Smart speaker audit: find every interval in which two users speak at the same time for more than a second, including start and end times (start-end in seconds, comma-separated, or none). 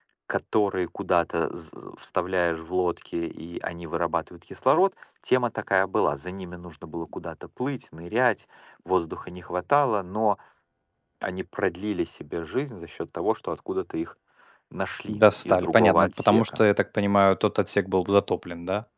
15.1-16.6